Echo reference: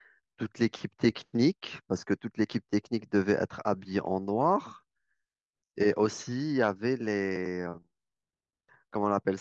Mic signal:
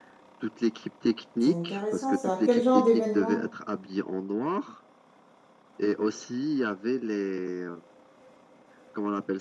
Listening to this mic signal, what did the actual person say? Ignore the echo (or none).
c'est intéressant ça. Quel genre d'événement?